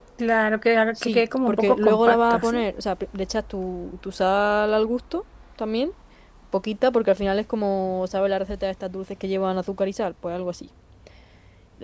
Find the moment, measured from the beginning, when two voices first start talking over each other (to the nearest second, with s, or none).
1 s